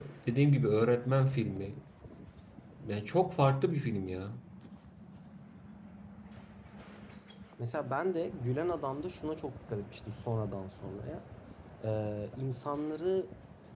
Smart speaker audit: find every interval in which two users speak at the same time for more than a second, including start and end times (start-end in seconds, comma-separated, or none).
none